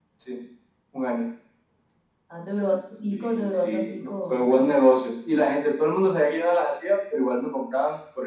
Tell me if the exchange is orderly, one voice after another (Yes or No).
No